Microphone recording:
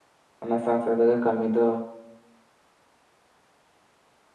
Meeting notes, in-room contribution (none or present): present